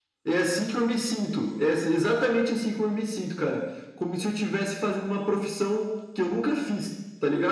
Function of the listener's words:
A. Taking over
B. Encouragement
A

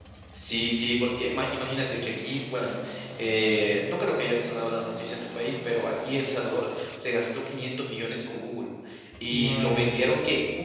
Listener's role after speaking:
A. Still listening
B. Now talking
A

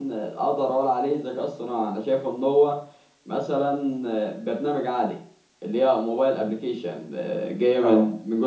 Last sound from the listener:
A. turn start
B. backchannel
B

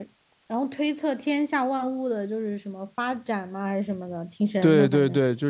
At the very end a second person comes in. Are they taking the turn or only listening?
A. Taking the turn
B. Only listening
A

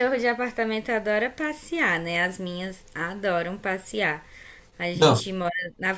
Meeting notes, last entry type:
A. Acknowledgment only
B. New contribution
A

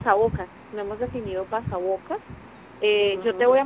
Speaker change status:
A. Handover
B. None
B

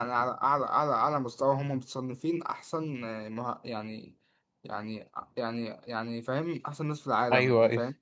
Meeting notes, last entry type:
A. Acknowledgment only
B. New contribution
B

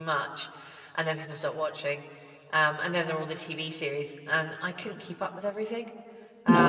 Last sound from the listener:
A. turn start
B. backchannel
A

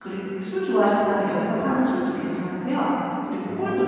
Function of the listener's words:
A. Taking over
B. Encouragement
A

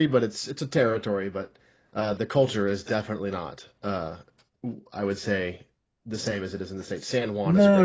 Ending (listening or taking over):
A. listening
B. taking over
B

